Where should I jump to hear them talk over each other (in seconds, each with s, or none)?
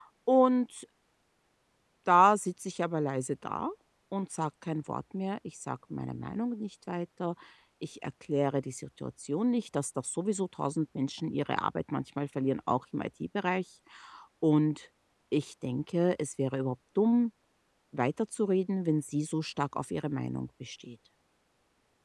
none